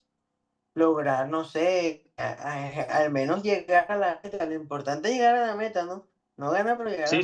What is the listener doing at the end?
taking over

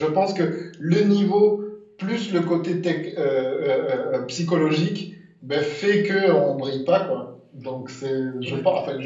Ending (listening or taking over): taking over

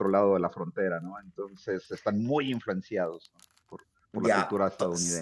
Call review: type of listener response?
taking over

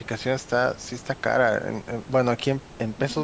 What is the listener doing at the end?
listening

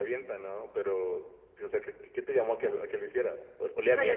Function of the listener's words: taking over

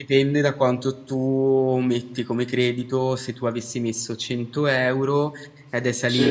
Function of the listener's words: listening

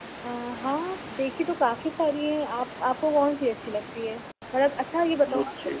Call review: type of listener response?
listening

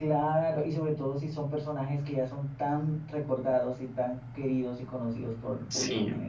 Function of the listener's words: taking over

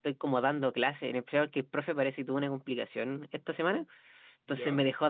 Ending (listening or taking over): listening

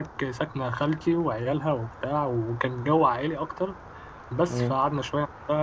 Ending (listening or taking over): listening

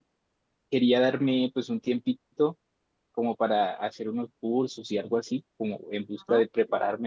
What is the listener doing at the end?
listening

